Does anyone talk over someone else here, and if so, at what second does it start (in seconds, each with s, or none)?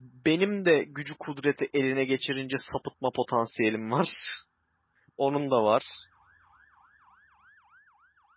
none